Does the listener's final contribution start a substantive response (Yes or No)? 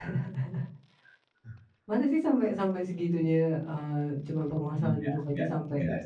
Yes